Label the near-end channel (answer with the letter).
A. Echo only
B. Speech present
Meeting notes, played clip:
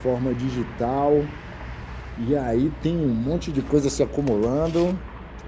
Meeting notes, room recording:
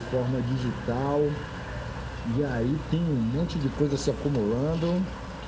A